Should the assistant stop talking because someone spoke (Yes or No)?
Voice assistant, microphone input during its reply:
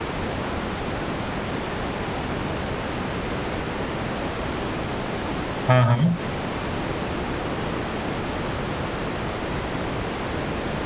Yes